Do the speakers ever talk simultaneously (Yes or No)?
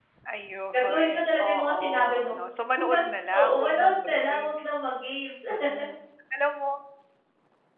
Yes